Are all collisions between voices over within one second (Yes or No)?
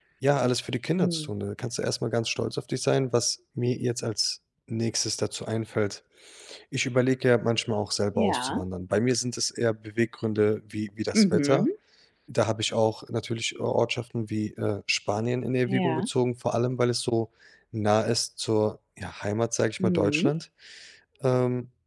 Yes